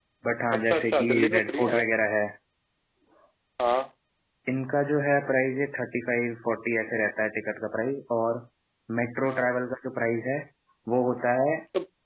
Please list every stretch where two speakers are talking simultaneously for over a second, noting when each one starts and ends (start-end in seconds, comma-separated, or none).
0.5-1.9